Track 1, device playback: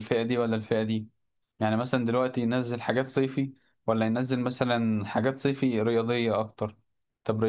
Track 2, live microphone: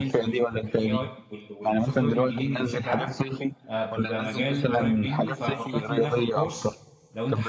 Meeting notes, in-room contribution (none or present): present